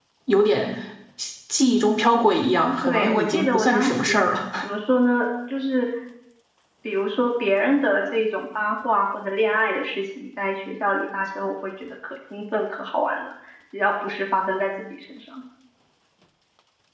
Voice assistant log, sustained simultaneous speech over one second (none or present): present